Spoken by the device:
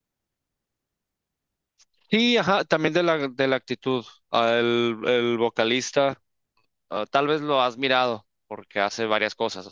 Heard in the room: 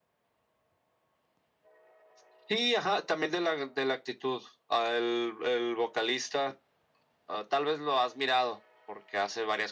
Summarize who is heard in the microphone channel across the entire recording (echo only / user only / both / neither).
echo only